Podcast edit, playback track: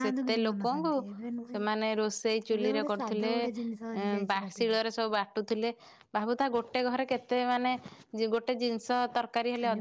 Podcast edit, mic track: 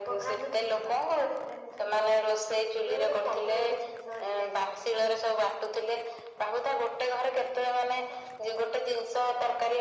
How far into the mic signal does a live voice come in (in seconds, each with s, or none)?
none